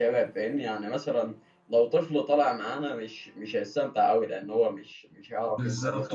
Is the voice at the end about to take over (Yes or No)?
Yes